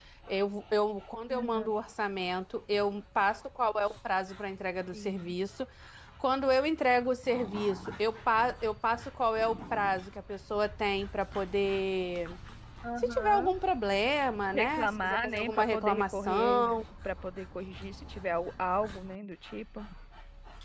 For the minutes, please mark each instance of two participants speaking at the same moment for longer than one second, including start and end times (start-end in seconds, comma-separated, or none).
14.5-16.6